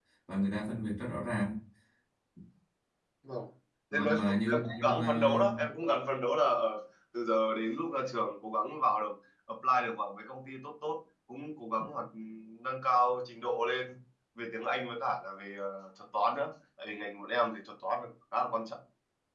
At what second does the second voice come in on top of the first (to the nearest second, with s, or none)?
4 s